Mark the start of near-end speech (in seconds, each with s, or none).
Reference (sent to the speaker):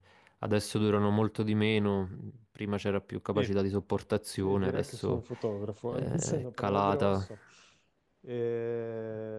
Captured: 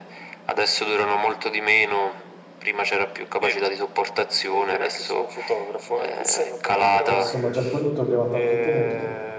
6.9 s